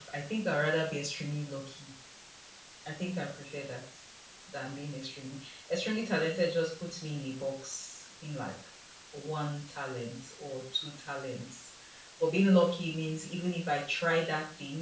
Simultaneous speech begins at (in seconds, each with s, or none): none